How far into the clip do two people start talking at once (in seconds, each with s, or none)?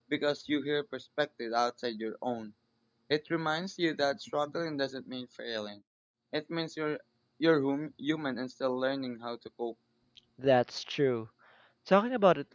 none